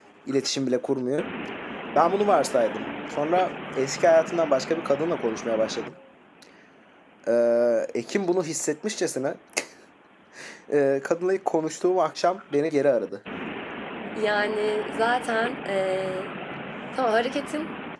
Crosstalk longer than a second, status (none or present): none